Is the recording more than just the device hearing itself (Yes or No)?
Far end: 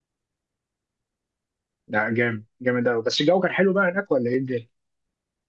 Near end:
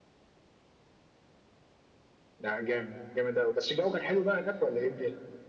No